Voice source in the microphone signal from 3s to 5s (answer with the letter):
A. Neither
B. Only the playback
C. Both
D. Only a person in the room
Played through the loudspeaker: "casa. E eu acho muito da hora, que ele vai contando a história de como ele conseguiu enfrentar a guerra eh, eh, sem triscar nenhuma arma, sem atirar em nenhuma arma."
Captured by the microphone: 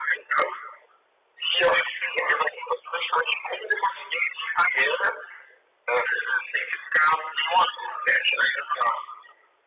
B